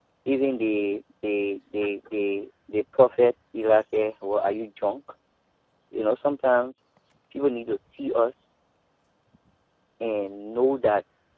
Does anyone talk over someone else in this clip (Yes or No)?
No